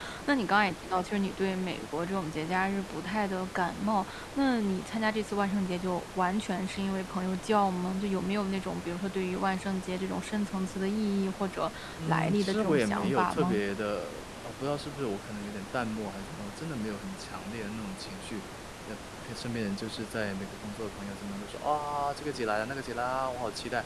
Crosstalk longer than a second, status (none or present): present